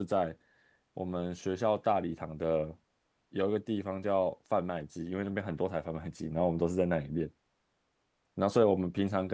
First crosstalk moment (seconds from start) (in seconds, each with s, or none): none